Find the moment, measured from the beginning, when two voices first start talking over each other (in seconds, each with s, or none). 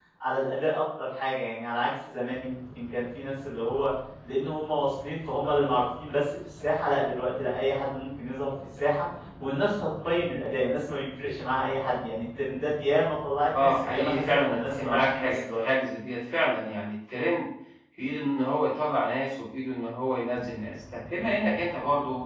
13.6 s